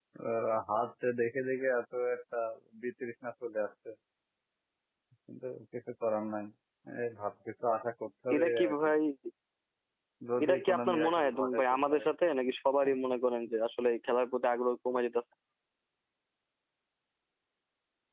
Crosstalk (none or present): present